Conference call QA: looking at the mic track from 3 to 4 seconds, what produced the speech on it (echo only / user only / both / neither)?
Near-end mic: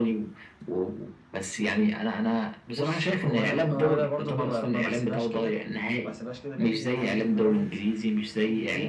echo only